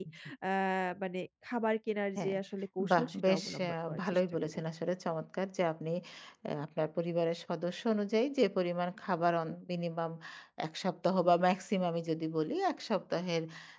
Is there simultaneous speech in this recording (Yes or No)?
Yes